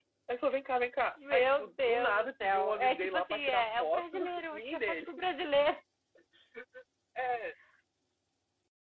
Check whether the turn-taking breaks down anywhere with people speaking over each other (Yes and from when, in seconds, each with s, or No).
Yes, from 1.2 s